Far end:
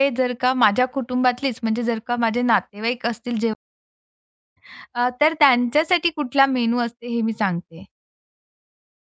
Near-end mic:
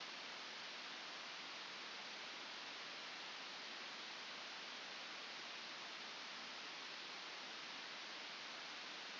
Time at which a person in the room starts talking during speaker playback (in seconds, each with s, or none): none